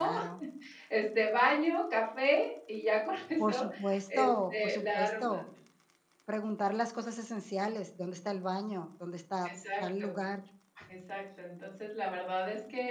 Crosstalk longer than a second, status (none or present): present